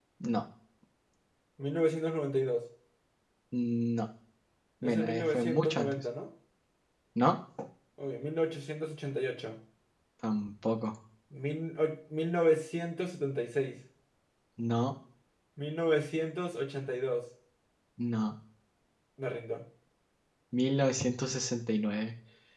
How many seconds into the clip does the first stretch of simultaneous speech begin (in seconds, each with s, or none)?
4.8 s